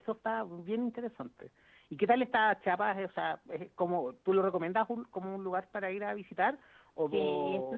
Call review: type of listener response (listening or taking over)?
taking over